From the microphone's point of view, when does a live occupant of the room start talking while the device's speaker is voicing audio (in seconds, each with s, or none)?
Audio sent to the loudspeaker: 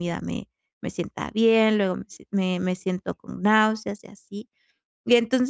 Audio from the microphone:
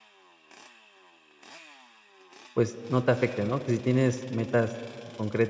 2.5 s